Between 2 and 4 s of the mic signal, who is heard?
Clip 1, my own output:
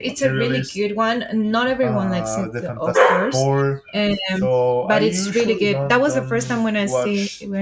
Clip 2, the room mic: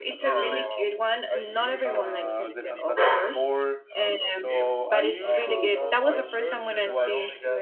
both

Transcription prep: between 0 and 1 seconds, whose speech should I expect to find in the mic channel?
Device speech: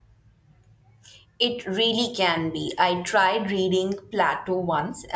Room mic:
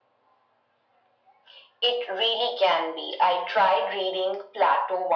neither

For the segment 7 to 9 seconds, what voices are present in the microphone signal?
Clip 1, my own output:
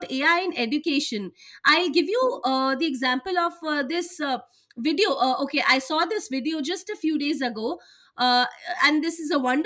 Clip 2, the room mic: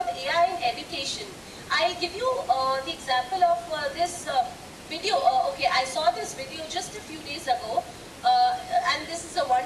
echo only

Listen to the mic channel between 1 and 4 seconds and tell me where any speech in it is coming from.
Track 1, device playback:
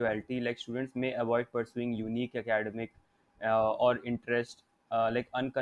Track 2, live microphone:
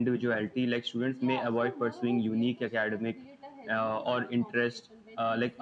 both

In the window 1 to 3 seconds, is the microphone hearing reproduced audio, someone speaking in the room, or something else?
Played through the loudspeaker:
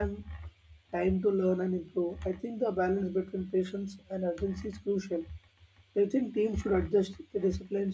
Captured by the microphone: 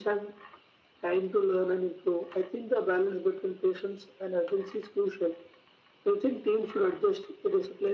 echo only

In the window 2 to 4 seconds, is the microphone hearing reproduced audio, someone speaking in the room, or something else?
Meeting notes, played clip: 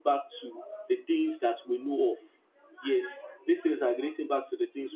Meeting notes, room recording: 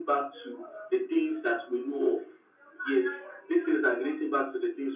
echo only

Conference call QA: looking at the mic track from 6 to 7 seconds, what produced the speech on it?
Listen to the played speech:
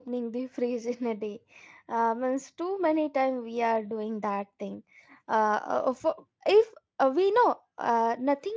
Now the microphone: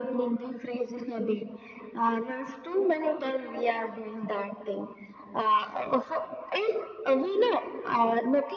echo only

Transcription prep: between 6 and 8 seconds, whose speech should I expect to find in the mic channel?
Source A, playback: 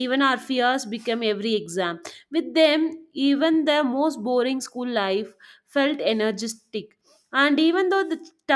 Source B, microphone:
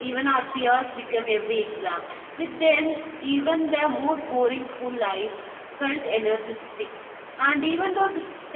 echo only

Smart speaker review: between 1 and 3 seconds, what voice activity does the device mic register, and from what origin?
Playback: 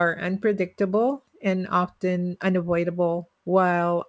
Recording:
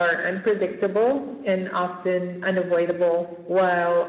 echo only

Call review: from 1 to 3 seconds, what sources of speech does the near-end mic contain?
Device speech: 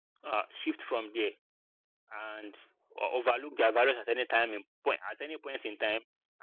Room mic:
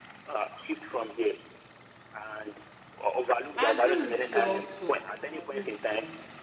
echo only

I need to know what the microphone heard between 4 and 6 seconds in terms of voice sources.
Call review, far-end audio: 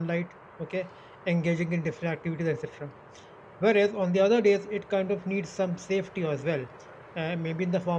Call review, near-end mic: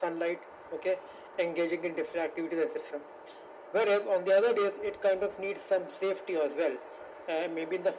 echo only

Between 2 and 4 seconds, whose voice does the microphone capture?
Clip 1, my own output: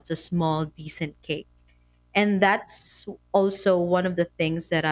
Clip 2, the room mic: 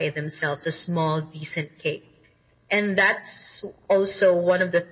echo only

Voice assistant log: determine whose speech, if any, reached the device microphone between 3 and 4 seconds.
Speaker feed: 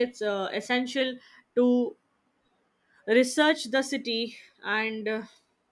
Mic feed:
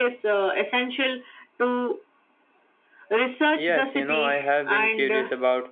both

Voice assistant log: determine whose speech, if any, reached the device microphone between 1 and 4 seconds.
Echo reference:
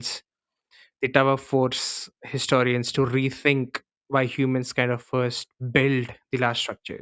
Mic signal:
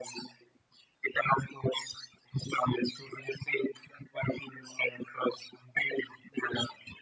echo only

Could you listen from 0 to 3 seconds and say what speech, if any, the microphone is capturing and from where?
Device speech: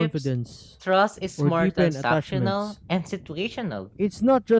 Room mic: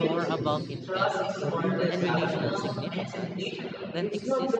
both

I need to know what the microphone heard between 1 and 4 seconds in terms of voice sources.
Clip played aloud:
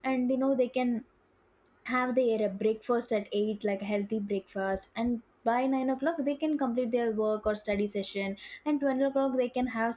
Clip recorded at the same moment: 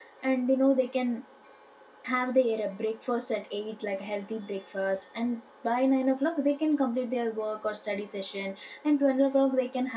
echo only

